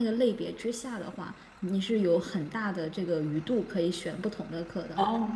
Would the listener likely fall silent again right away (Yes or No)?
Yes